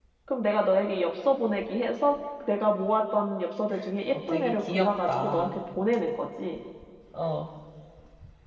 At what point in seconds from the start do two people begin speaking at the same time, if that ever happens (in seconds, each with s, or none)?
4.1 s